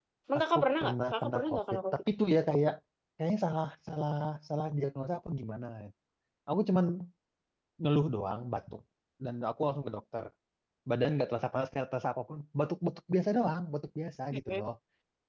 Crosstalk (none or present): present